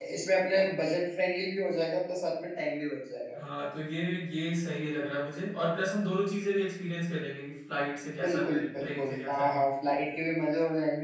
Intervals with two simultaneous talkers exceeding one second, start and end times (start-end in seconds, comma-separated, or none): 8.2-9.5